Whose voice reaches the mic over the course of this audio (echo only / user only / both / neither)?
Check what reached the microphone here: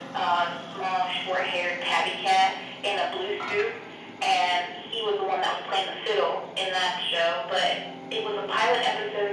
echo only